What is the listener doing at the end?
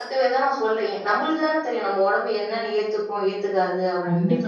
taking over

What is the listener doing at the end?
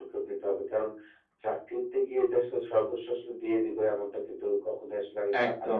listening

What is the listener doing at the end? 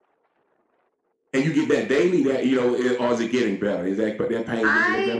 taking over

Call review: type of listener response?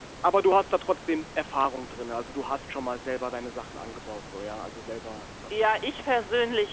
taking over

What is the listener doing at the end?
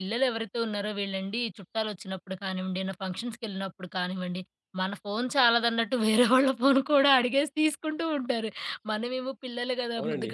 listening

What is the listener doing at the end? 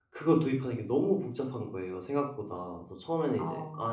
listening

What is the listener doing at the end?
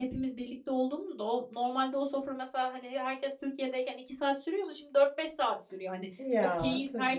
listening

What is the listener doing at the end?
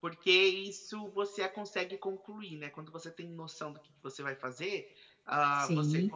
listening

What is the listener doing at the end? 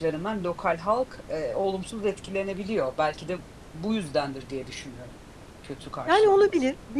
taking over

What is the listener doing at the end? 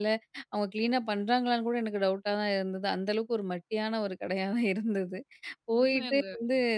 listening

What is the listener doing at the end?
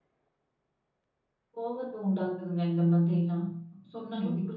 taking over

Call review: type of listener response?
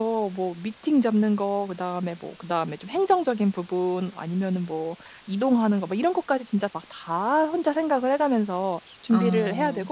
listening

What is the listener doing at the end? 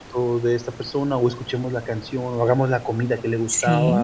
taking over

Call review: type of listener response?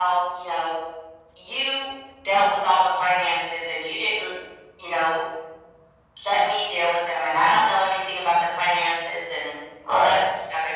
listening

